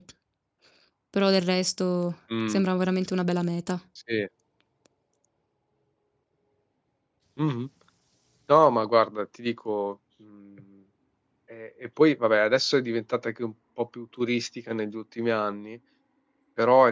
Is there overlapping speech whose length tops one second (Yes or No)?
No